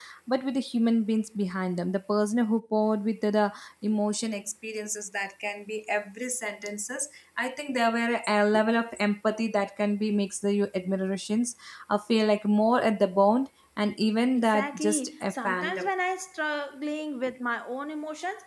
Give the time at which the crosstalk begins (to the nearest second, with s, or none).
14 s